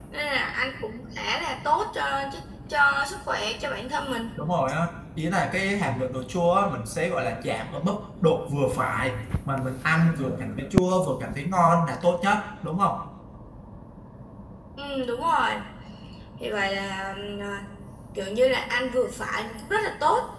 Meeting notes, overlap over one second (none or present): none